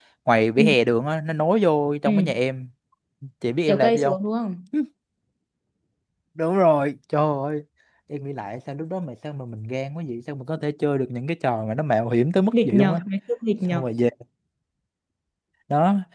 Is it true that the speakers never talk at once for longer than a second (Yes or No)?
Yes